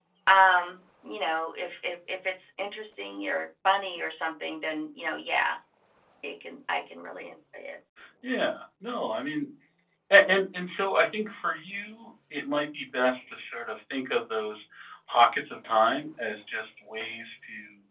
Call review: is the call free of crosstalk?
Yes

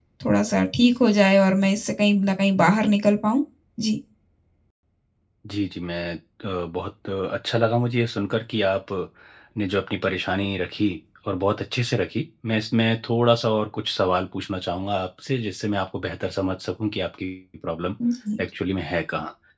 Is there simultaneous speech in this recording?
No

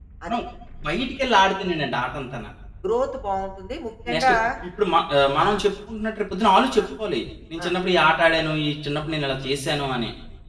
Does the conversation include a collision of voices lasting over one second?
No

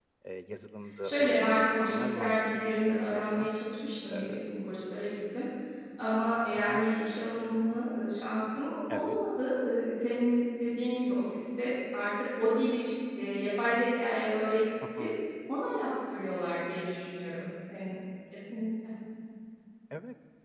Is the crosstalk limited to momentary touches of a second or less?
No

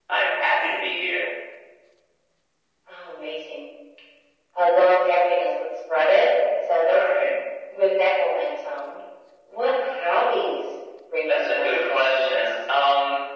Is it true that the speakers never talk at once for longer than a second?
No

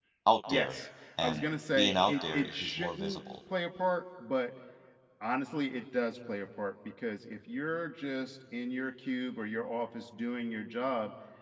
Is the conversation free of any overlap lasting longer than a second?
No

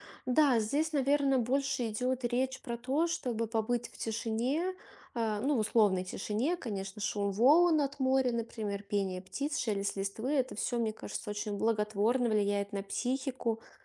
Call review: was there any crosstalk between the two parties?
No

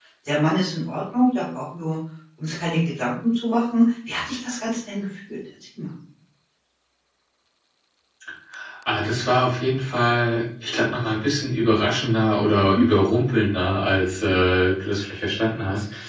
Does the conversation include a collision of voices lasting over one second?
No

